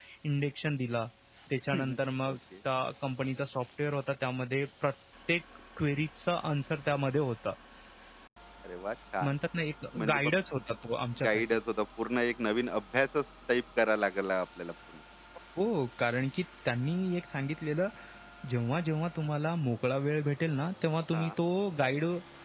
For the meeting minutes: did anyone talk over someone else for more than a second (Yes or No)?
No